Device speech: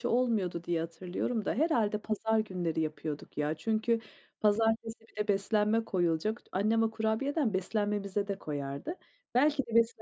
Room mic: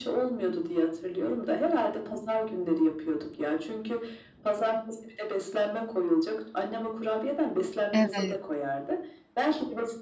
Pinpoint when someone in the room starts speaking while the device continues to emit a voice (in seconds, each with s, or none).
7.9 s